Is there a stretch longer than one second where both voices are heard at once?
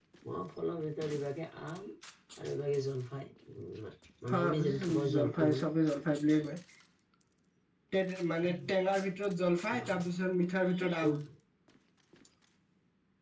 Yes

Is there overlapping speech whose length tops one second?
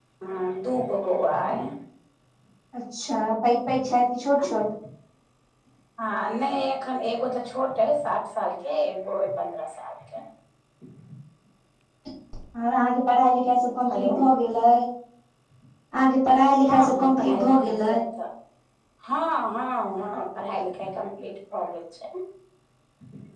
Yes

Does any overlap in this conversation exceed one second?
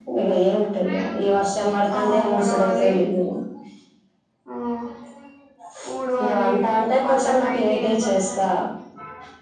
Yes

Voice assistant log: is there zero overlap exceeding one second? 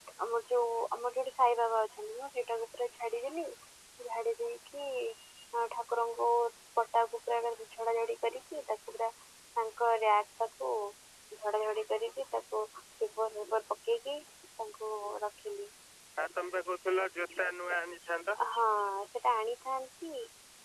Yes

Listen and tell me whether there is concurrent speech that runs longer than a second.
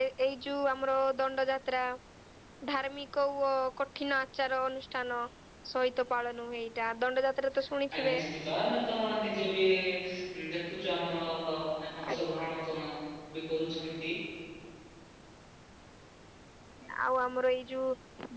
No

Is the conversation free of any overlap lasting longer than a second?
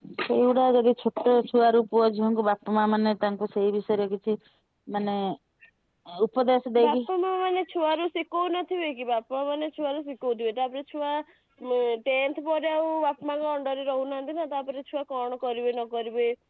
Yes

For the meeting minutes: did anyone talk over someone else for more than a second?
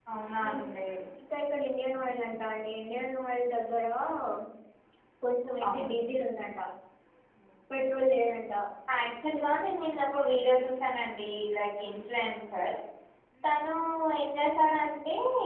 No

